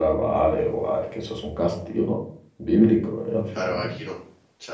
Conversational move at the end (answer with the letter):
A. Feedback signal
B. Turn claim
B